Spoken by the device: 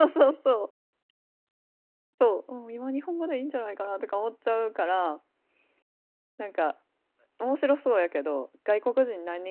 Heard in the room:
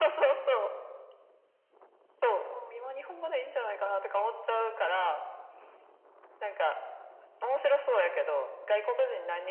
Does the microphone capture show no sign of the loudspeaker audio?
No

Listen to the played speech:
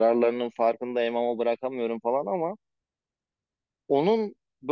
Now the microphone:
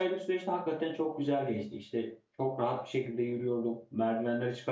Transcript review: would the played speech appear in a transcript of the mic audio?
No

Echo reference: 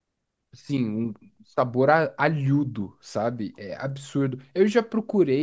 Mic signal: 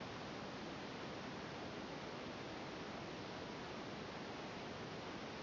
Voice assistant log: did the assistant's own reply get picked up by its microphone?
No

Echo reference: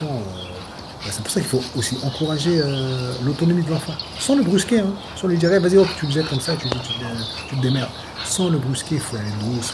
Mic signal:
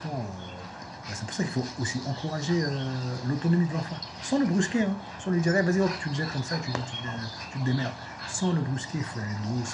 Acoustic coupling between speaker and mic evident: Yes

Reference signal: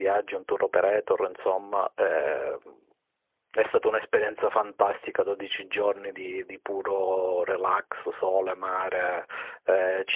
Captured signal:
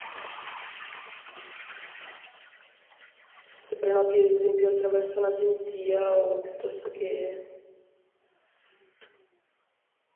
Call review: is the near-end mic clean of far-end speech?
Yes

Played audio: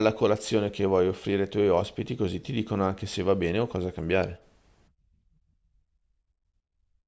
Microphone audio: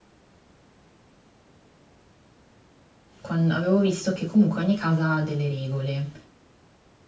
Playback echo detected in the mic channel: No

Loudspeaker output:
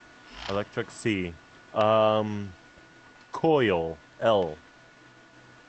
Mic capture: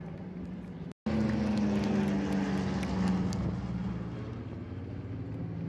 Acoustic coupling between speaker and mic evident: No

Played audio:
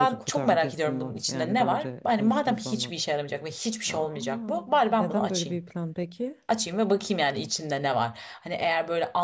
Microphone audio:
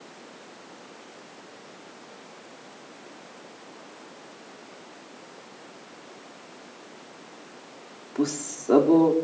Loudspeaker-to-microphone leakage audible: No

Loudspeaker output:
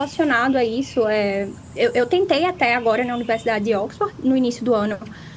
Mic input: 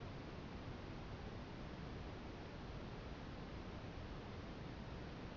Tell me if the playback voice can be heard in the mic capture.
No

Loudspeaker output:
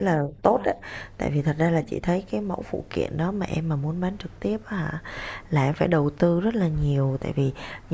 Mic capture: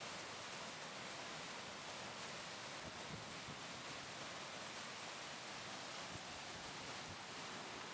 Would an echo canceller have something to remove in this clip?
No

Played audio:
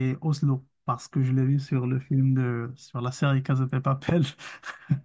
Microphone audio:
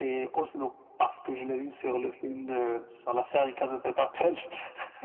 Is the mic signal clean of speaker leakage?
No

